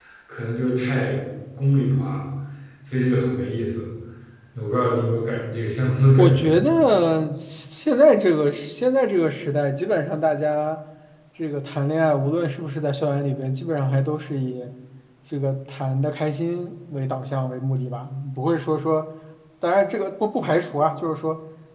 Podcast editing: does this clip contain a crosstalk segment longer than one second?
No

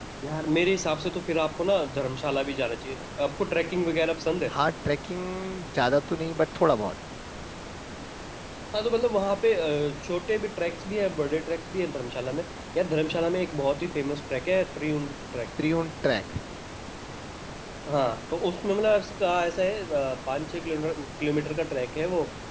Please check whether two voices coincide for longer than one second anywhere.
No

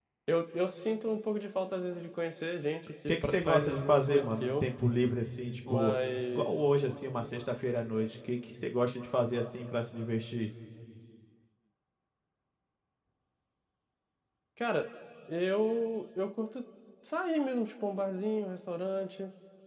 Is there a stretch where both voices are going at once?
Yes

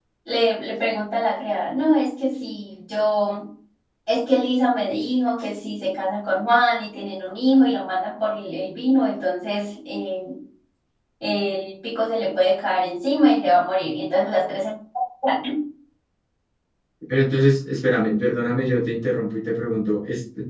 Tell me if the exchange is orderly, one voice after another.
Yes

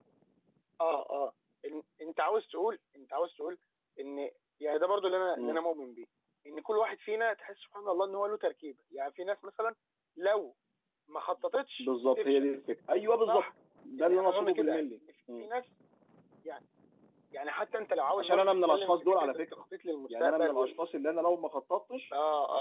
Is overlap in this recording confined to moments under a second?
No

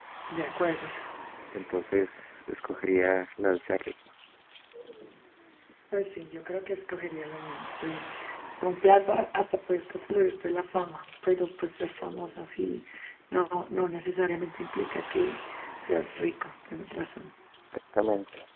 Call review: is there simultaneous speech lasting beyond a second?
No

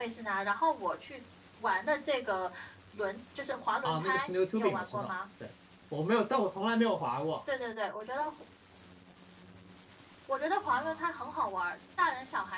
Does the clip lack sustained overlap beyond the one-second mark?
No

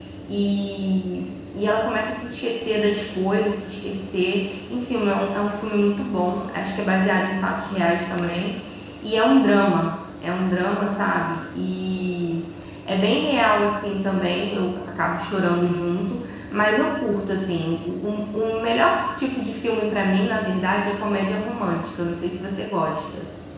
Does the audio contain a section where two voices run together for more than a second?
No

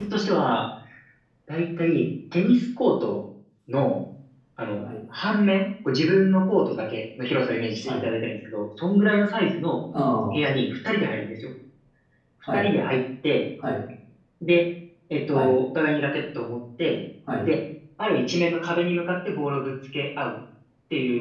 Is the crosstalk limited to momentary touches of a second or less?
Yes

